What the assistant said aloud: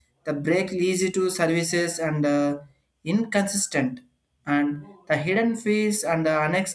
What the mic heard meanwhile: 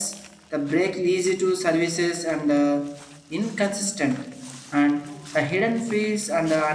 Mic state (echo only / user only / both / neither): echo only